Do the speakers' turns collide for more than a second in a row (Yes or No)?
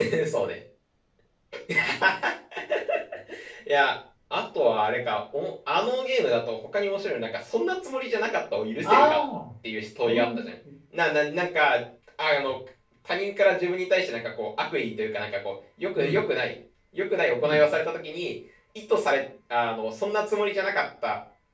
No